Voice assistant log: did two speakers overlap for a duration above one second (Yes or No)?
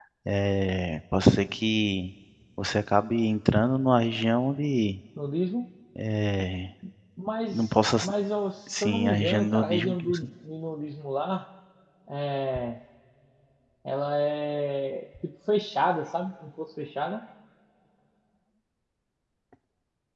Yes